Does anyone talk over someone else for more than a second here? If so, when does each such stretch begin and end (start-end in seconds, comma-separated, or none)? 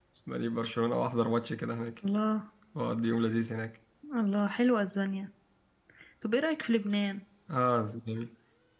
none